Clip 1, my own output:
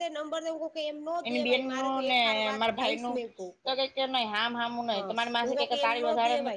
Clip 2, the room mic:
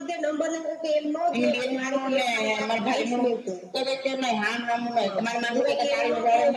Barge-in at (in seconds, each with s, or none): none